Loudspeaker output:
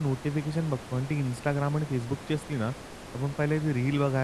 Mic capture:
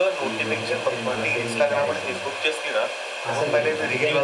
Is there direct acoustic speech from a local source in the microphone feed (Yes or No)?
Yes